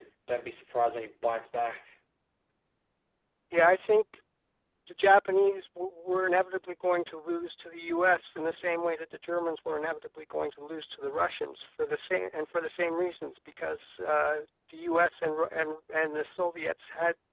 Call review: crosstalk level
none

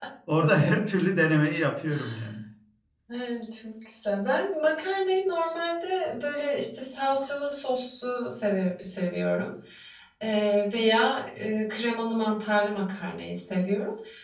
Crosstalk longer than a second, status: none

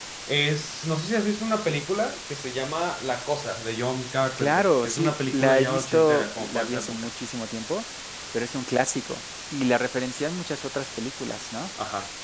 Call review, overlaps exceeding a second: present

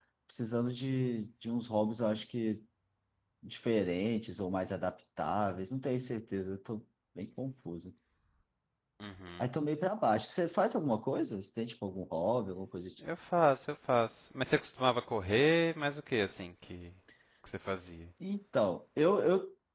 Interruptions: none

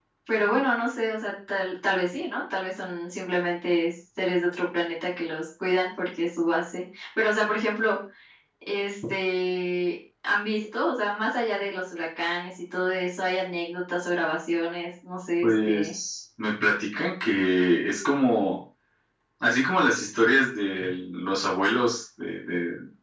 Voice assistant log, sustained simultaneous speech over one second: none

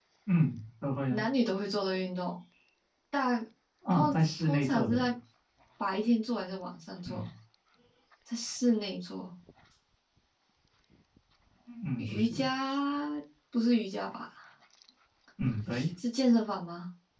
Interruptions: present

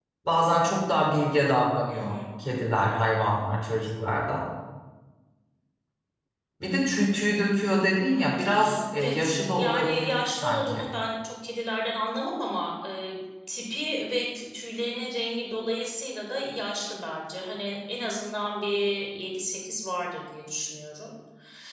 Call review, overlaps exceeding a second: present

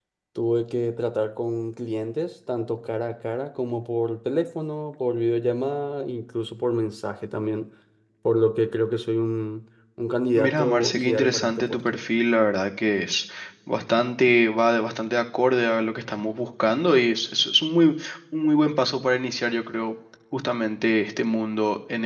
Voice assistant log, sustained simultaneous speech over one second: present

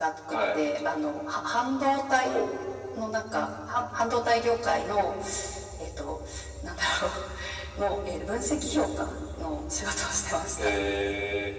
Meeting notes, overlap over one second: none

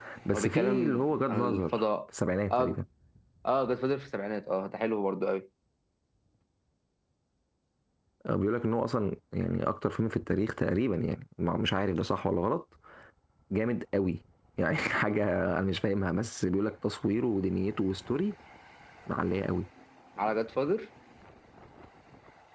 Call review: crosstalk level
present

